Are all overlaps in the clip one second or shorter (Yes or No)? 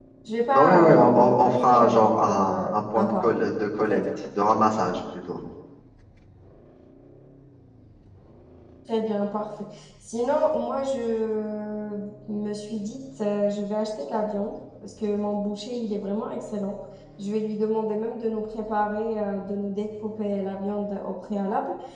No